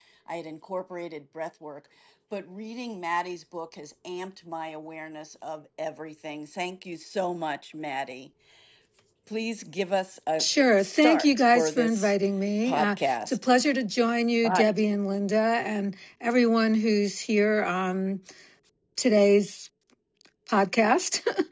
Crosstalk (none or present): present